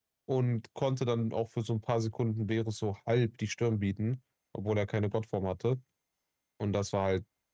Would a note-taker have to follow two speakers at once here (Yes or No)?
No